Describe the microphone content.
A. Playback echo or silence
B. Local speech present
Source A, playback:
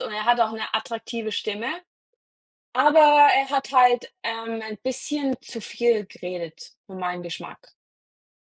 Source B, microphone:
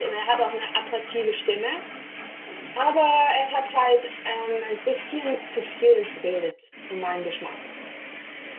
A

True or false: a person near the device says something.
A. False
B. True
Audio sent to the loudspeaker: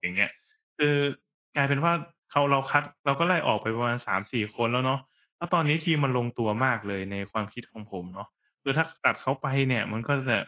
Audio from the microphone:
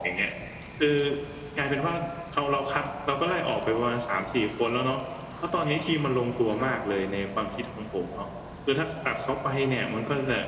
A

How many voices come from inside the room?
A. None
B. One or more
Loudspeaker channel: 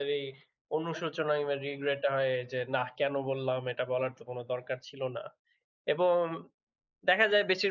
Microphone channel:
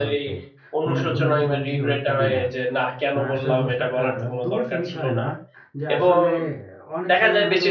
B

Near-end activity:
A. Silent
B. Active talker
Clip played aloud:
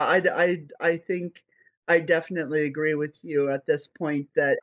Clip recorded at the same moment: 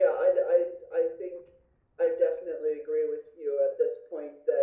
A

